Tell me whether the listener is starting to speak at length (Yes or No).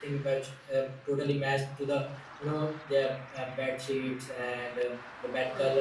No